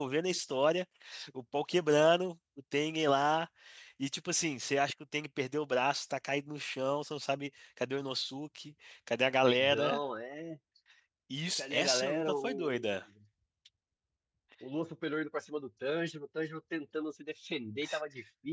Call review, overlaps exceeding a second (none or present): present